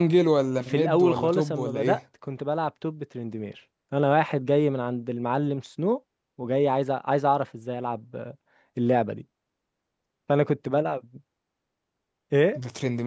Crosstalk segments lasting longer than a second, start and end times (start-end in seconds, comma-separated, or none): 0.7-2.0